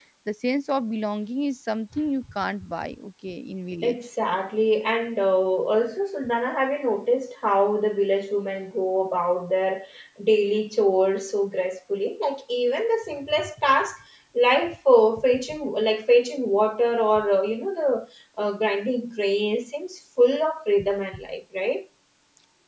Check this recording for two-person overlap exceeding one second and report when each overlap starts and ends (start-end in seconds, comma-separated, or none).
none